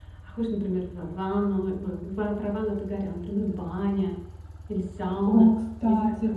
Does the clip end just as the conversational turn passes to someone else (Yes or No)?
Yes